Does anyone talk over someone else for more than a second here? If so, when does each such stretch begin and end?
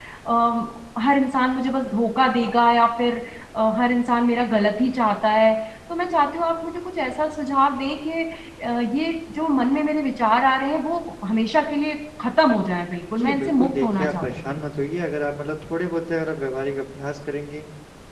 13.2-14.6

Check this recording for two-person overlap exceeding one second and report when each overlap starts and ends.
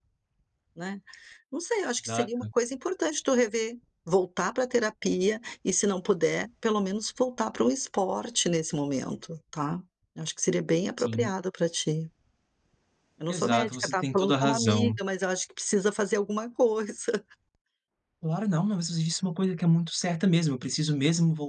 13.3-15.0

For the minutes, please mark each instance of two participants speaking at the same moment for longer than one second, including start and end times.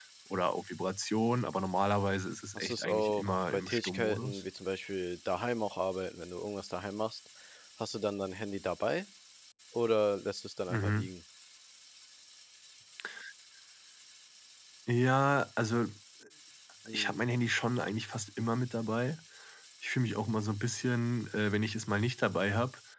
2.5-4.4

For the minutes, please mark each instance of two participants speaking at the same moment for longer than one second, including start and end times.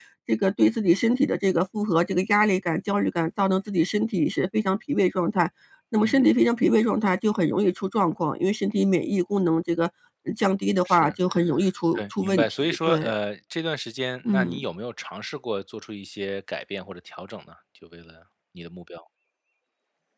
11.9-13.2

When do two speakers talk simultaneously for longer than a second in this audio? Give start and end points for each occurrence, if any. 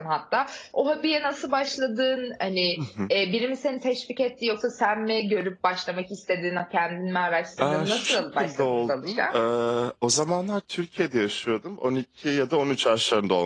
7.6-9.4

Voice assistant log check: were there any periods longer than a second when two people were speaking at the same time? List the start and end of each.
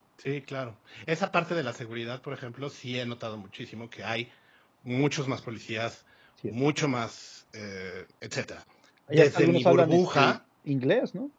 9.1-10.4

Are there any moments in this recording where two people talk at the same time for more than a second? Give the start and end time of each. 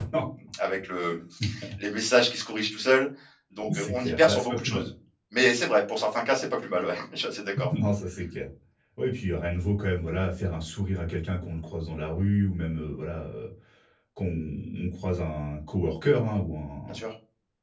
3.7-4.9

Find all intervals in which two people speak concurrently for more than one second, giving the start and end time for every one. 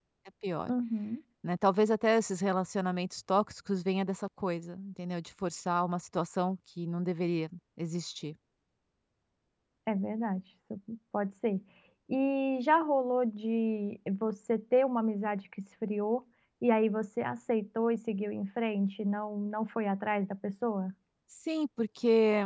none

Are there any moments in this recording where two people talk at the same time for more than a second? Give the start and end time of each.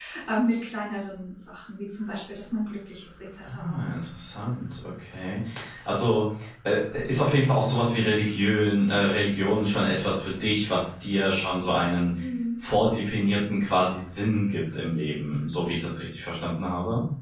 none

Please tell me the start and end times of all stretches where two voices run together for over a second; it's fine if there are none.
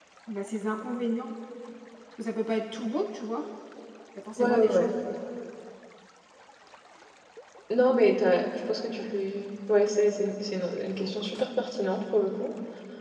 none

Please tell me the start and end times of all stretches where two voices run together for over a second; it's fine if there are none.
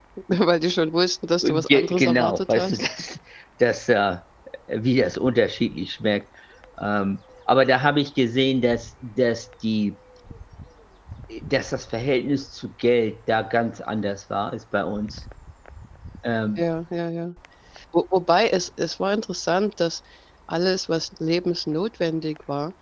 1.4-2.9

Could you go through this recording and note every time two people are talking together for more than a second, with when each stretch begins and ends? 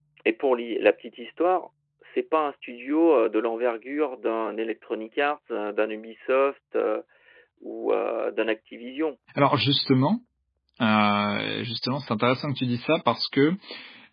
none

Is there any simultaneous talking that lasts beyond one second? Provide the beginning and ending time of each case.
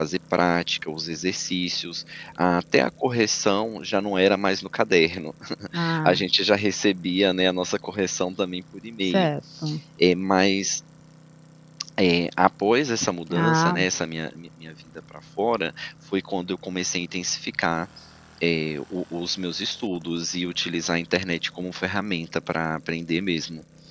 none

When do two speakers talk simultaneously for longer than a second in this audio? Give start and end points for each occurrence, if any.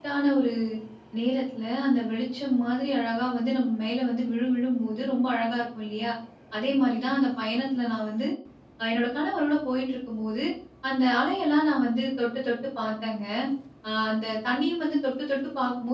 none

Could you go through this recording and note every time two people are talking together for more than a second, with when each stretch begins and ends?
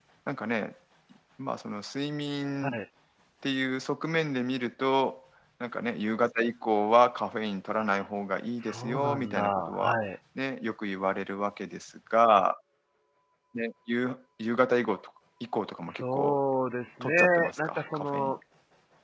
8.6-10.0, 17.0-18.4

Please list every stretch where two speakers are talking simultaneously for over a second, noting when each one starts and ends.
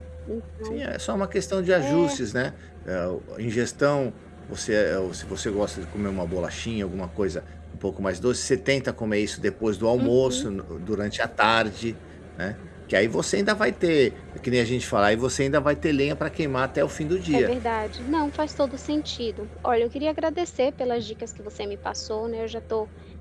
none

